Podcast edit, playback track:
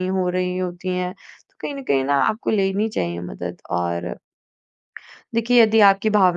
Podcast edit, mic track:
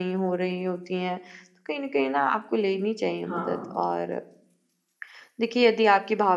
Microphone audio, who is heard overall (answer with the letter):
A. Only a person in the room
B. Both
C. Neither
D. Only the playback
B